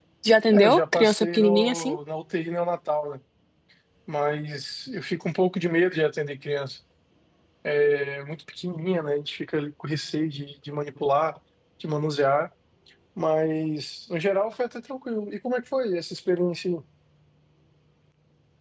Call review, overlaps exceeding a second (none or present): present